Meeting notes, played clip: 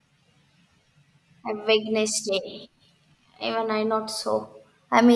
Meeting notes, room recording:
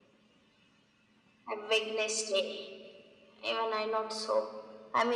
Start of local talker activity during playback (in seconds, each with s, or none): none